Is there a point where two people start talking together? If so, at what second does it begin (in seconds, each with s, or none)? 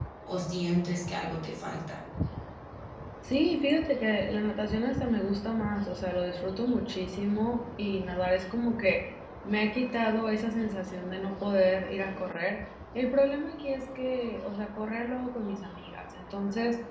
none